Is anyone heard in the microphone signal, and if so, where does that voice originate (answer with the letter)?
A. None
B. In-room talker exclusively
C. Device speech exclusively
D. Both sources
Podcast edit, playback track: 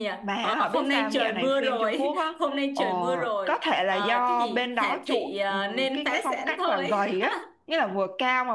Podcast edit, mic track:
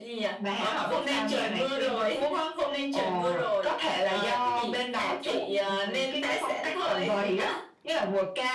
C